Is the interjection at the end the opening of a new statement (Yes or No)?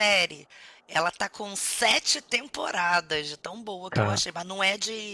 No